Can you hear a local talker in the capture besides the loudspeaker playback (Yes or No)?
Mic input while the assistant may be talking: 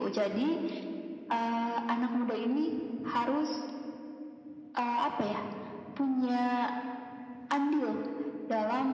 No